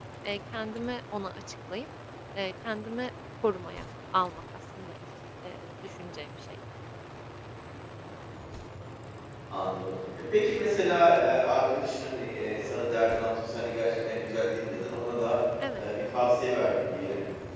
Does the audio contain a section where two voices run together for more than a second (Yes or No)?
No